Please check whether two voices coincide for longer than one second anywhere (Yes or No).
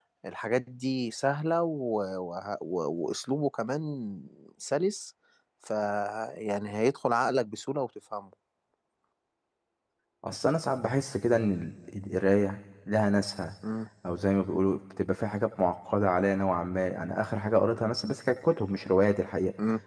No